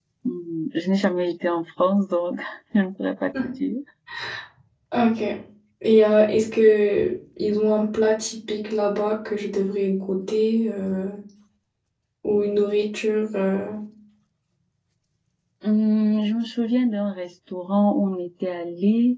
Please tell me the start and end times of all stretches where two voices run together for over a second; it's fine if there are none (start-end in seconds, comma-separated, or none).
none